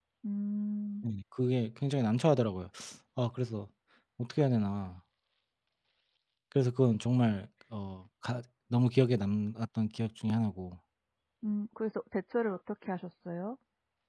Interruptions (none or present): none